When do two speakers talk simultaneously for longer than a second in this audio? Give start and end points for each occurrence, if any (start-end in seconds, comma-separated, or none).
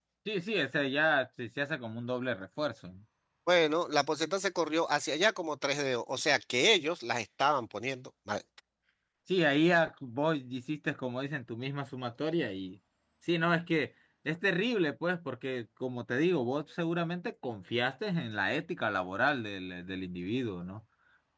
none